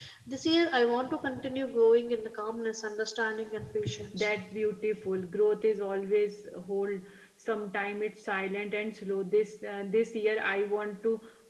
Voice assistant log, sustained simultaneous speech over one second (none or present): none